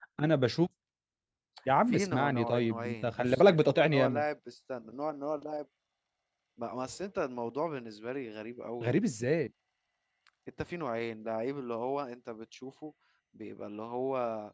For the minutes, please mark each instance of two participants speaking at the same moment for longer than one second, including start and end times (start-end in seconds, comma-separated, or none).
1.9-4.2